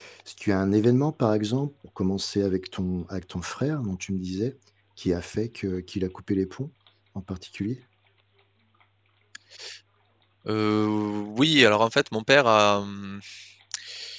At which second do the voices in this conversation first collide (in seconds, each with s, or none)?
none